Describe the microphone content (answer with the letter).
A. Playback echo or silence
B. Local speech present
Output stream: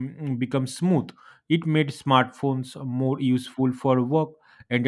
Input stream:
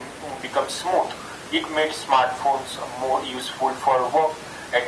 A